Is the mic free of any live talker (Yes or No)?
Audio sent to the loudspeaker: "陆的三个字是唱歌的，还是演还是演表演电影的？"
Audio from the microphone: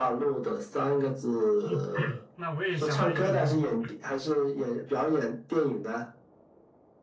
No